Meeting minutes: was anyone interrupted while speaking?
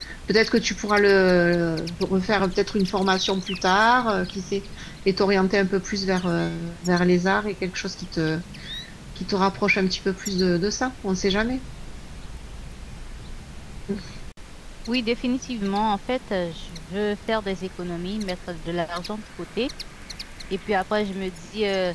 No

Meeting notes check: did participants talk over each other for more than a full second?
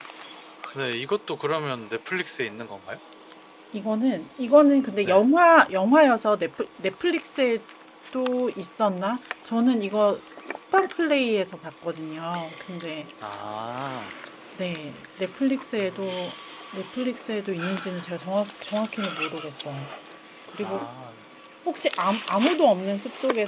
No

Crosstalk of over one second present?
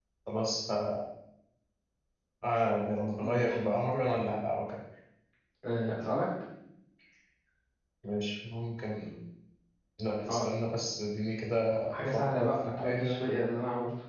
Yes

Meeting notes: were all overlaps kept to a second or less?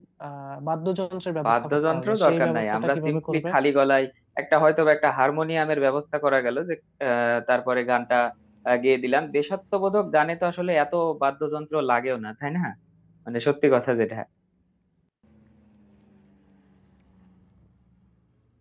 No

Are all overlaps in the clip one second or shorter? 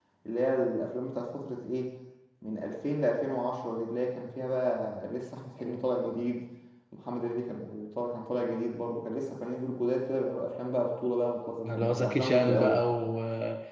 No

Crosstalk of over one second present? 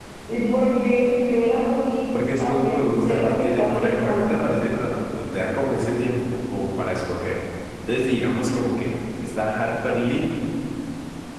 Yes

